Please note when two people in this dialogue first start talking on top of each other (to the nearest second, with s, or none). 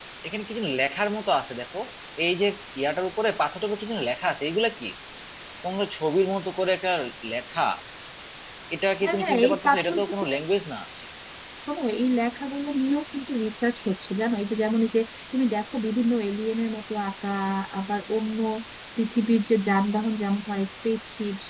9 s